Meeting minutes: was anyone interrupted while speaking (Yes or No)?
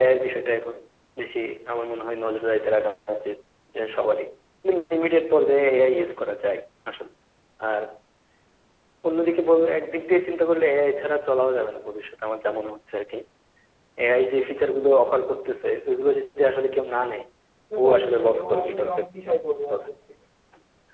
Yes